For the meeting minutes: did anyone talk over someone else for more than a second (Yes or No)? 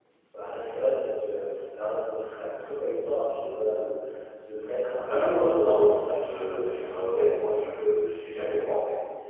Yes